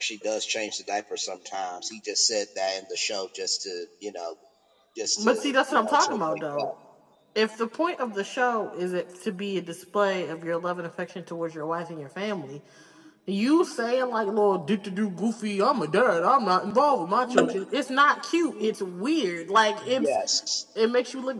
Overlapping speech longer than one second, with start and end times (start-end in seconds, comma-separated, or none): 5.2-6.7